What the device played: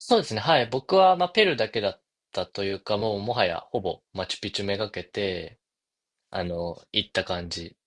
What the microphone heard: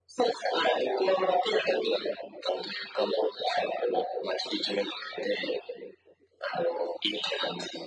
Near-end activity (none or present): none